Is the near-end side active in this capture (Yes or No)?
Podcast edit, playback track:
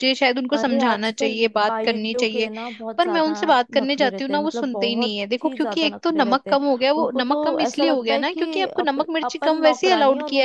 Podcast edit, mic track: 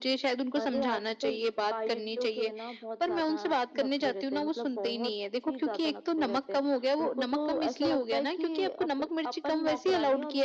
No